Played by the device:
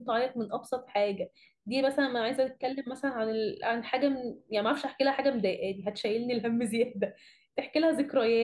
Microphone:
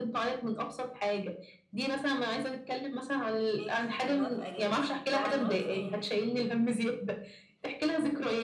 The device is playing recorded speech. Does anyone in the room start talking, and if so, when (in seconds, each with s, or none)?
3.6 s